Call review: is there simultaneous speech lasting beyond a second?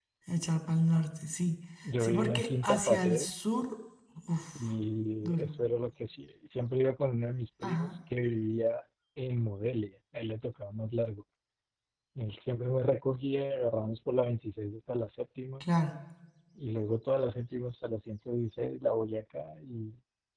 Yes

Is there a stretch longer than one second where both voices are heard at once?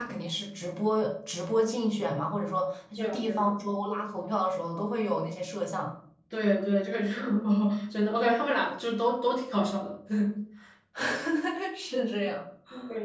No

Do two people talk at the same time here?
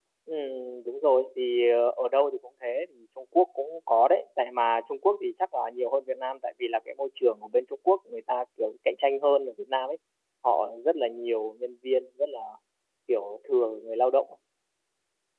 No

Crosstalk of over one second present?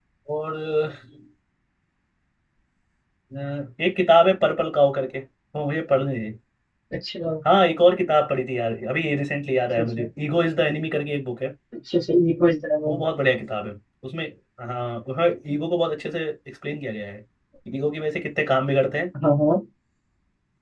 No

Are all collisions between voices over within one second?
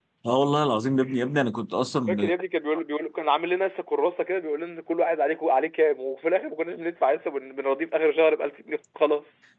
Yes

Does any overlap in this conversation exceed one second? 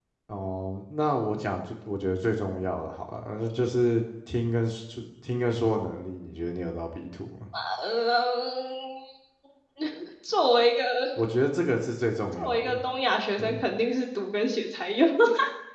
No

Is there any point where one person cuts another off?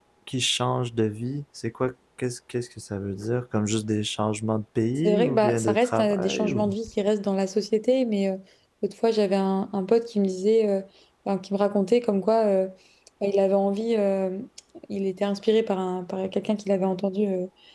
Yes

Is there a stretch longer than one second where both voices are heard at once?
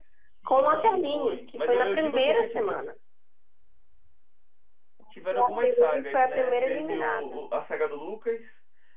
Yes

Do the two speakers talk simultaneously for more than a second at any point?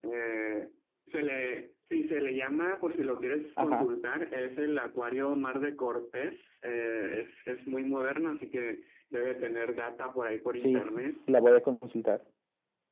No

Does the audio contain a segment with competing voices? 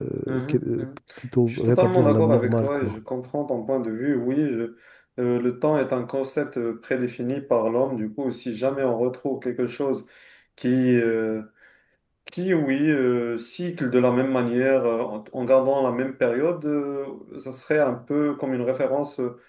Yes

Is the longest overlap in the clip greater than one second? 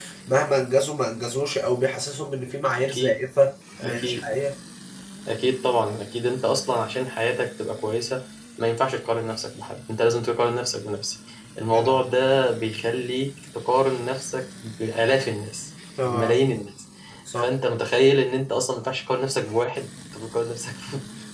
No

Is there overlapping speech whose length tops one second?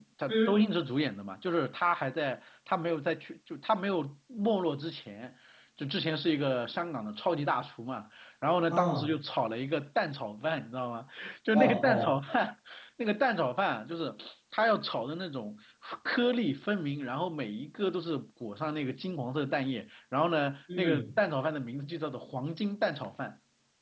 No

